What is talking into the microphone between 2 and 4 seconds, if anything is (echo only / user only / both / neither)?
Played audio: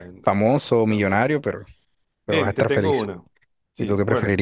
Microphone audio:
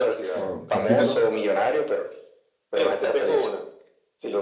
echo only